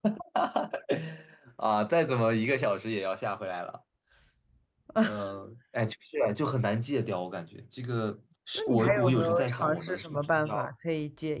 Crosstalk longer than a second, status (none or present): present